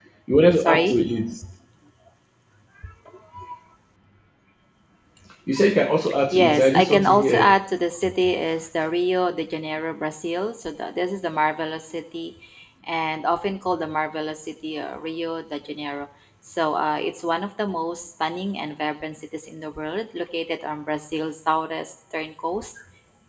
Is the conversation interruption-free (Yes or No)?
No